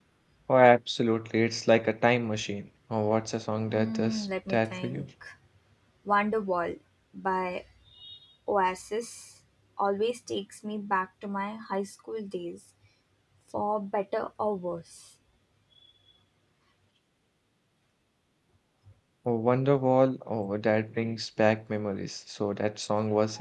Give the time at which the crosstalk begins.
3.7 s

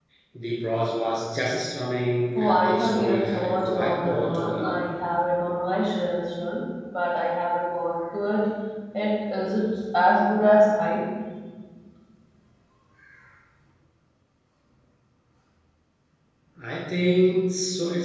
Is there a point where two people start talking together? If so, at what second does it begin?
2.4 s

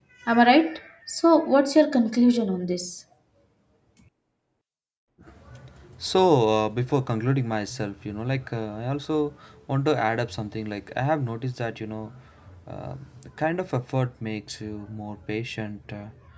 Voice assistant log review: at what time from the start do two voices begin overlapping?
none

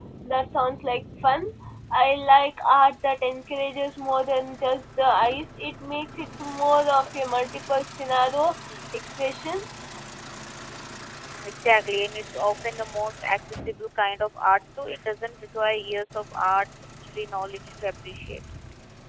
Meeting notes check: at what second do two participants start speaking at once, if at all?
none

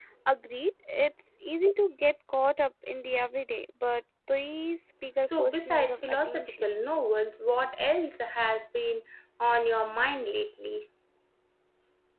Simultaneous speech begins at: 5.2 s

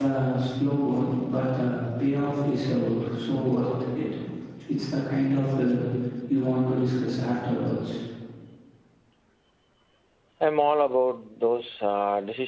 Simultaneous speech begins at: none

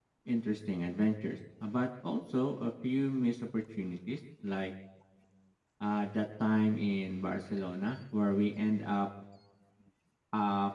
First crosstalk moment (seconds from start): none

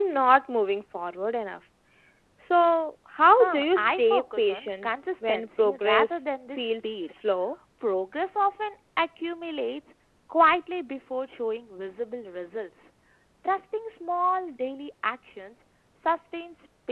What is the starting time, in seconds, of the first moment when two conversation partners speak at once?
3.3 s

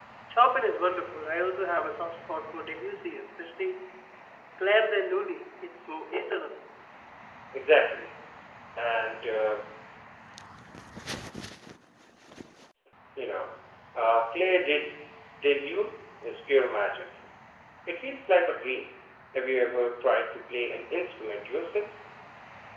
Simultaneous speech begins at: none

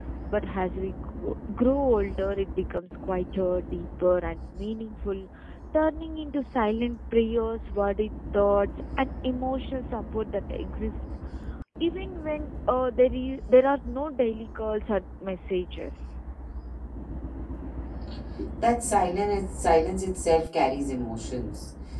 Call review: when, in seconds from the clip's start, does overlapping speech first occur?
none

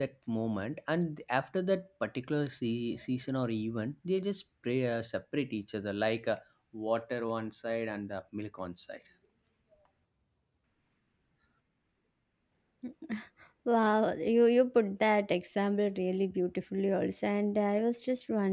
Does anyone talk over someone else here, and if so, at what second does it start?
none

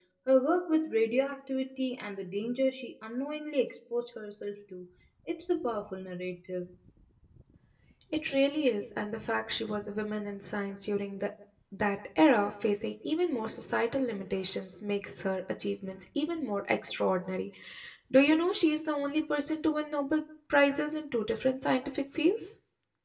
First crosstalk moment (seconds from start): none

